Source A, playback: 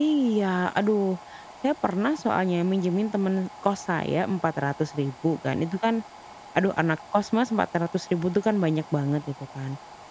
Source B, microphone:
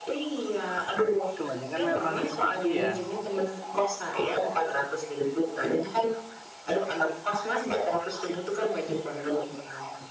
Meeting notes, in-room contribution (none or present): present